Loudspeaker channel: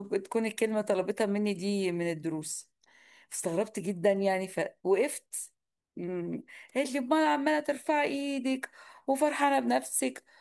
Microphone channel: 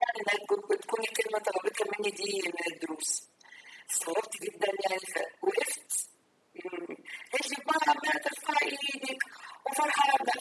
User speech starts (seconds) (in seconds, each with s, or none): none